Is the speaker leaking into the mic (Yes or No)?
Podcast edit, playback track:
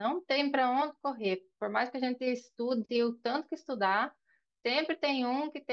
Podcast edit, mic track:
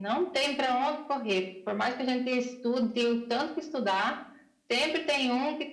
Yes